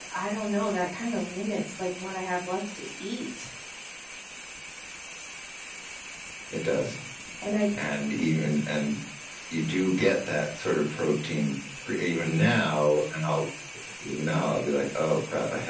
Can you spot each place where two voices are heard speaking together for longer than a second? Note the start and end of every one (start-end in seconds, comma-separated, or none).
none